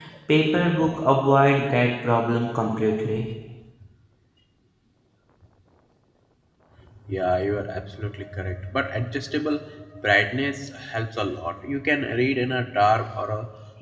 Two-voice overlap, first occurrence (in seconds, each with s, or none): none